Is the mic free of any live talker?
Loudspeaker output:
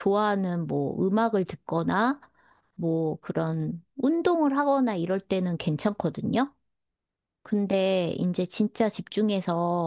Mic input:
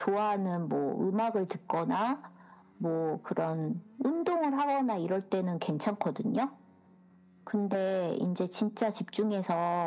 Yes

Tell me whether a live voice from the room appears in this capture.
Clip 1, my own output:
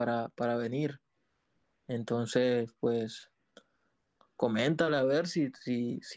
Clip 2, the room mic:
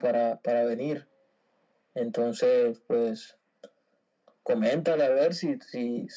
No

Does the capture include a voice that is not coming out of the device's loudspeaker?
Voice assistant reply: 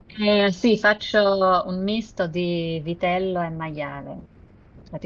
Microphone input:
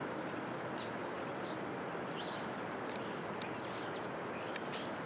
No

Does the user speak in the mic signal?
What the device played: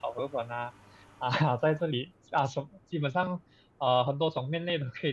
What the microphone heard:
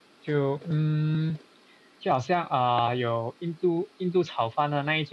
Yes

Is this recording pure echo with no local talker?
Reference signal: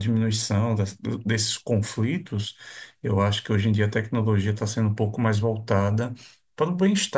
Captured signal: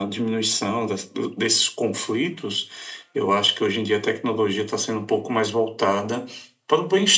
Yes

